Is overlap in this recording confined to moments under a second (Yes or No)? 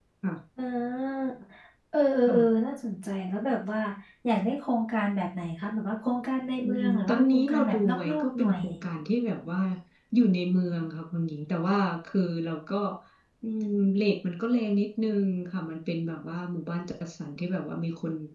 No